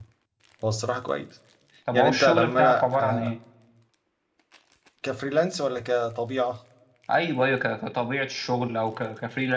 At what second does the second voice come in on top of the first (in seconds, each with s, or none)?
1.9 s